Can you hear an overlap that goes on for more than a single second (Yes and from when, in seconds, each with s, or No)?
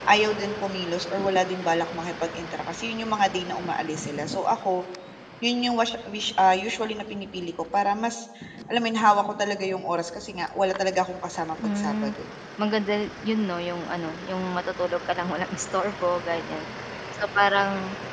No